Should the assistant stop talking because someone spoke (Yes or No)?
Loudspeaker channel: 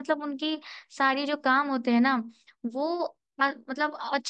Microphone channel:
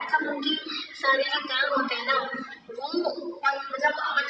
No